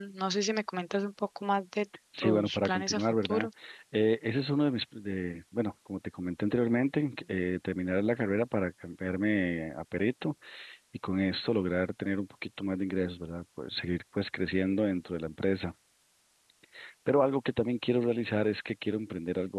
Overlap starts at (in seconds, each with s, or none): 2.1 s